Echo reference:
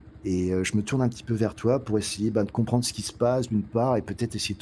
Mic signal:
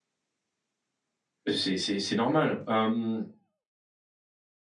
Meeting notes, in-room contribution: present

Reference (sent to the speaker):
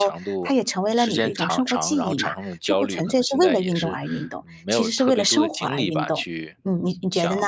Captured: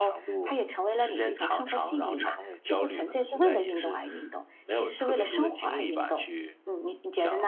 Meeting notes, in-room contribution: none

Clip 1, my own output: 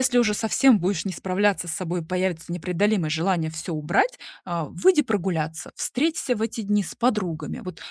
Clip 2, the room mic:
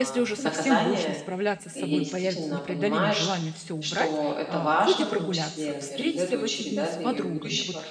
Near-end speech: present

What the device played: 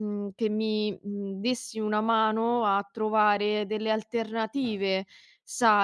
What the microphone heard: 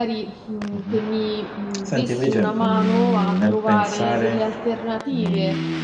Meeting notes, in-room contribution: present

